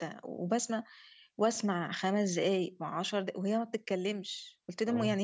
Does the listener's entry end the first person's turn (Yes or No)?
No